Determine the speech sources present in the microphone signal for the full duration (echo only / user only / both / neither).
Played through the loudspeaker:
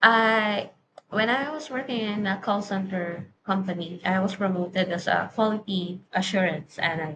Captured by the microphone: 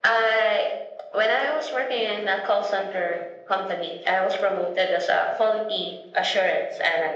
echo only